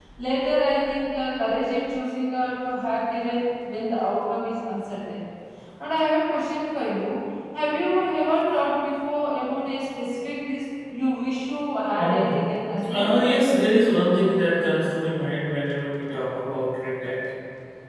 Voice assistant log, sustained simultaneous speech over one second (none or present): none